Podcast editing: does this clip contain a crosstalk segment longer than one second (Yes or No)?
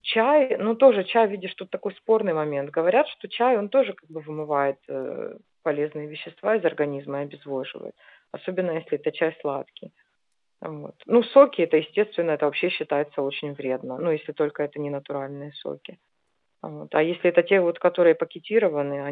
No